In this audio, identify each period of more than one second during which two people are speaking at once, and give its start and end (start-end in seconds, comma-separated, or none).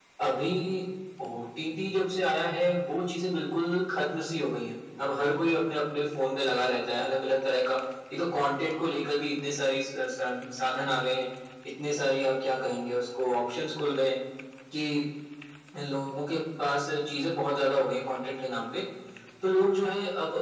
none